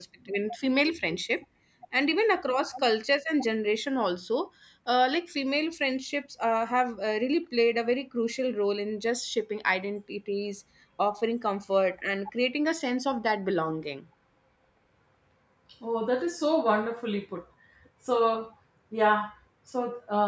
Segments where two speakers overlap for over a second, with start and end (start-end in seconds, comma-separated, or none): none